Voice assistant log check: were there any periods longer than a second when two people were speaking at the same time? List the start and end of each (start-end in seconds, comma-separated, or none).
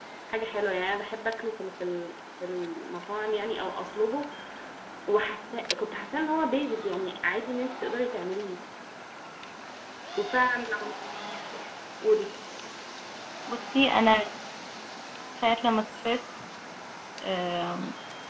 none